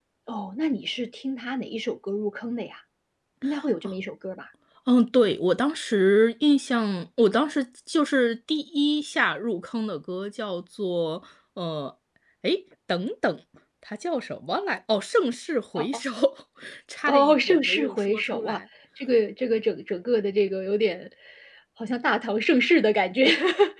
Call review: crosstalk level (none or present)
present